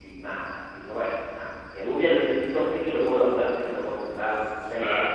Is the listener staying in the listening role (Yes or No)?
Yes